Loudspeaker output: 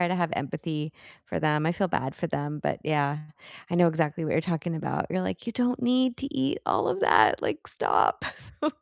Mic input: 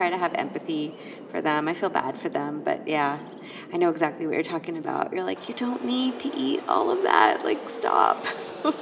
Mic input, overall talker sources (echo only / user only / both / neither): echo only